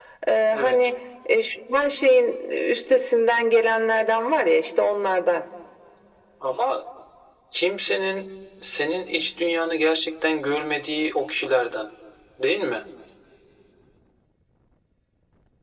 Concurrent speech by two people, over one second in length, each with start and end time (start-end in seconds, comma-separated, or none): none